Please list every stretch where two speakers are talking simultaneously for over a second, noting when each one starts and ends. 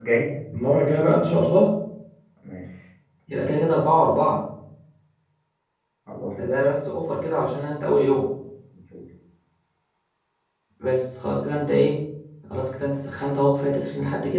none

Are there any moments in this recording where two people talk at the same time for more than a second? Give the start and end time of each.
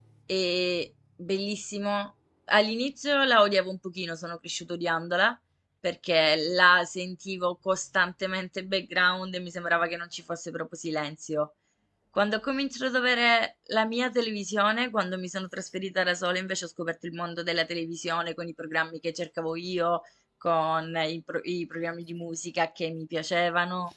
none

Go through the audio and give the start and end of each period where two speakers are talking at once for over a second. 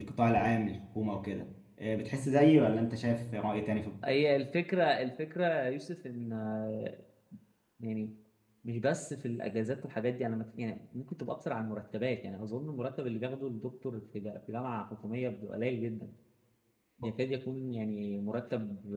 none

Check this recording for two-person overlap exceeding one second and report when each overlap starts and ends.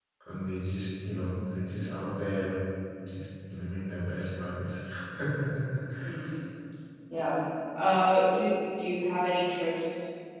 none

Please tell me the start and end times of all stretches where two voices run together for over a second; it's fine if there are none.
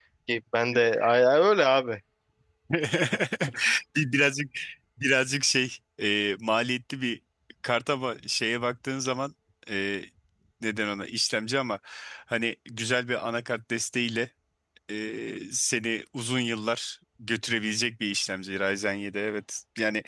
none

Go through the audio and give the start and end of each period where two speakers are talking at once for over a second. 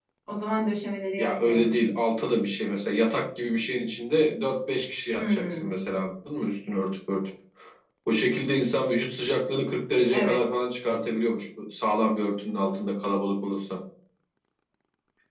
none

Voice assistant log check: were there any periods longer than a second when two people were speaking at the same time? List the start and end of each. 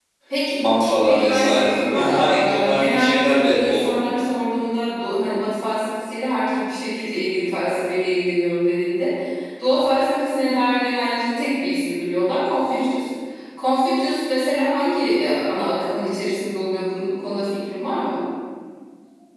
1.0-3.9

